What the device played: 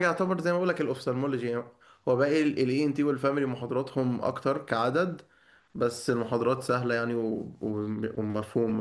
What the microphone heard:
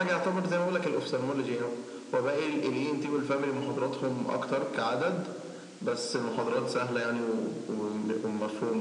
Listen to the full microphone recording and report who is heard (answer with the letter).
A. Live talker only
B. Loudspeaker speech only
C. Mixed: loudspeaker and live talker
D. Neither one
B